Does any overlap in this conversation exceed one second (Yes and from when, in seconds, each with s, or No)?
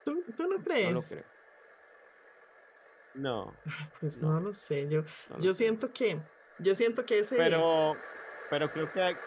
No